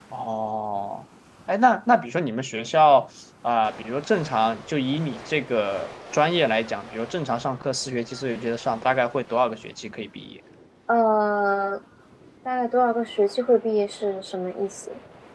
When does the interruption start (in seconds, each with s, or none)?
none